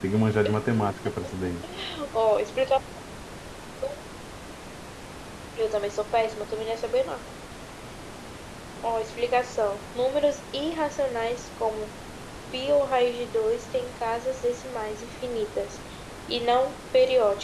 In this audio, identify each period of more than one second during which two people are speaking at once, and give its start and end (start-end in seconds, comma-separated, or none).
none